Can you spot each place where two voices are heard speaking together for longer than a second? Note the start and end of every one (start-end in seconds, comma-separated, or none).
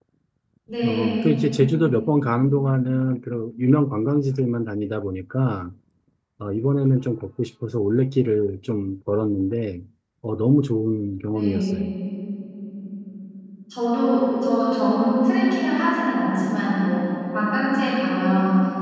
none